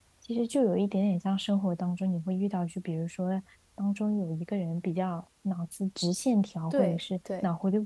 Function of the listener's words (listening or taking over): listening